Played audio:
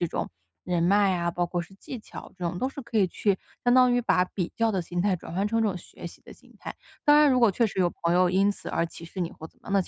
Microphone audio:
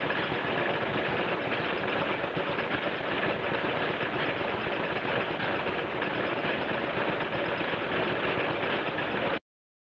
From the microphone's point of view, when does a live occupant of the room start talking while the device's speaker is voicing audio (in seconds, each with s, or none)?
none